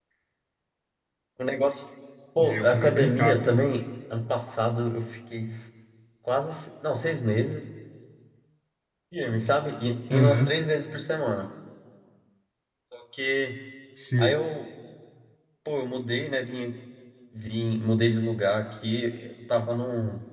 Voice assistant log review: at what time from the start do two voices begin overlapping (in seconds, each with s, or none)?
2.4 s